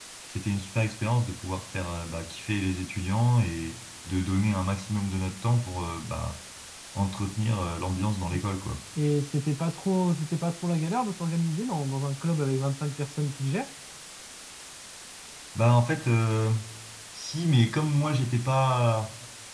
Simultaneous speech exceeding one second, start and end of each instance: none

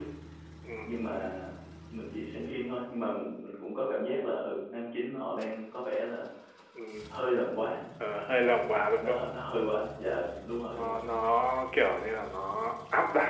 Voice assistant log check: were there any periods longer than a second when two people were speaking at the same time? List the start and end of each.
none

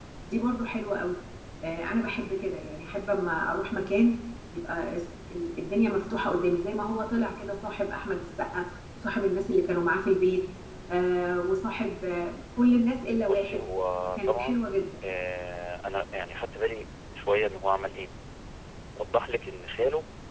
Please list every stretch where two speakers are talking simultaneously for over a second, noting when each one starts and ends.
none

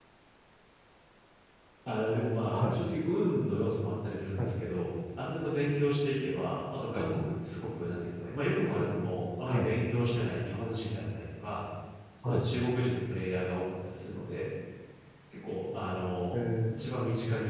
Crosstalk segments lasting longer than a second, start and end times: none

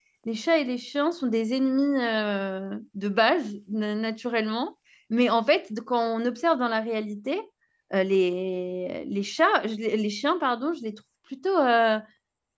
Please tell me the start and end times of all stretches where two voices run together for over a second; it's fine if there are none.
none

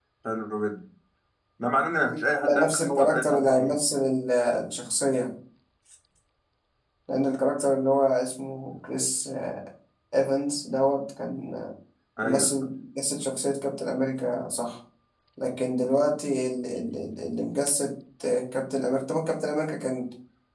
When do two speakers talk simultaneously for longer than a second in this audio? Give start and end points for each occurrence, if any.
2.4-3.8

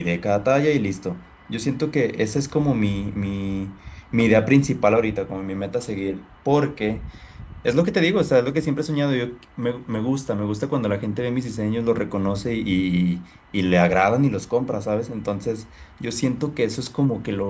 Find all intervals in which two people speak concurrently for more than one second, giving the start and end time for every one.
none

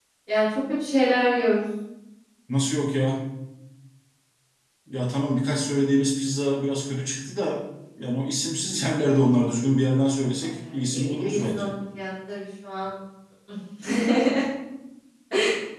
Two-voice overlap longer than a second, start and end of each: 10.4-11.7

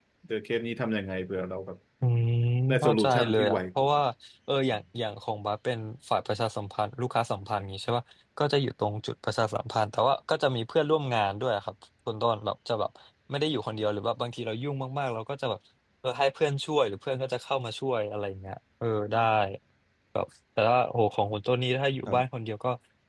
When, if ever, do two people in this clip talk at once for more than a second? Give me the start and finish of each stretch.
2.8-4.0

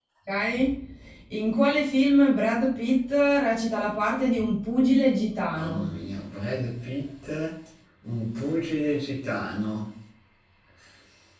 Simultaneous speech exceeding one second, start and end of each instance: none

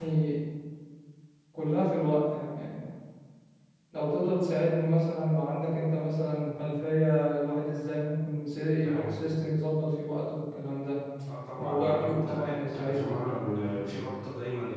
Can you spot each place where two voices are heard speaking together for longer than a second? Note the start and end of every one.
11.6-13.2

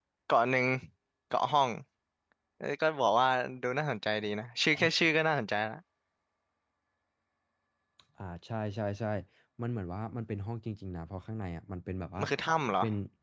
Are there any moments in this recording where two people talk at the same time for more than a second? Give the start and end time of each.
none

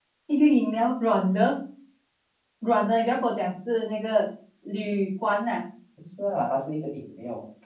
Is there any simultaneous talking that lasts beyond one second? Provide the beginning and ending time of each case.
none

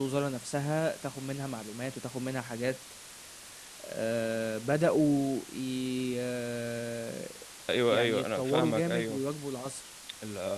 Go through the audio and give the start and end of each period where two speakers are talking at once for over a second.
7.9-9.2

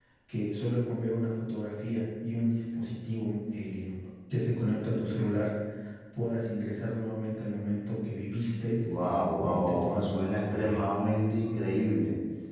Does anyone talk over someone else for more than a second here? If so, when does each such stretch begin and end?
9.4-10.8

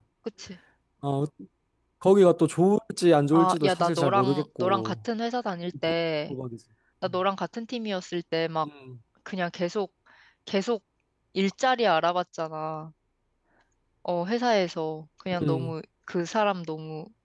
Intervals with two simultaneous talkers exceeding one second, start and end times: 3.3-5.0

